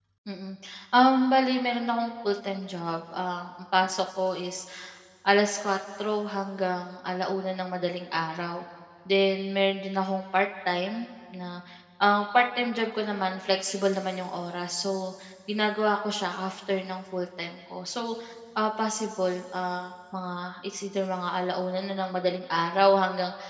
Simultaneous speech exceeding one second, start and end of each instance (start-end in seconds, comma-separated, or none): none